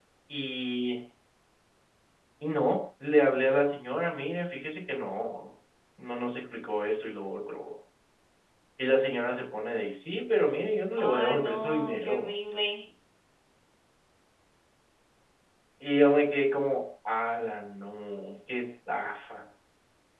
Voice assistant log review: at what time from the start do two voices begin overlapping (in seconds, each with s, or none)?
11.0 s